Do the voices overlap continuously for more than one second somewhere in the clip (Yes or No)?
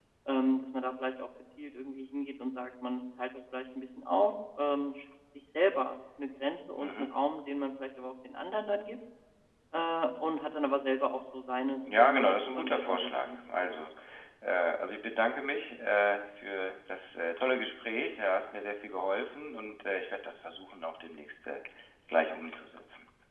Yes